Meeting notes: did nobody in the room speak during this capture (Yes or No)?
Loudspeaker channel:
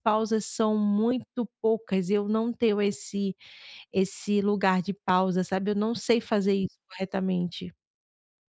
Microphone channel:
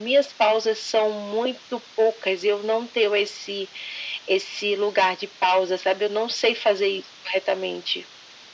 Yes